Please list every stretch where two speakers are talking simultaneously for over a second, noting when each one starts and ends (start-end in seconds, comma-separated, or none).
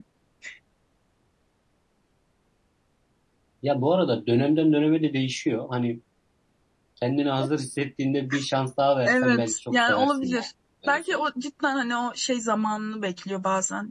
9.1-10.5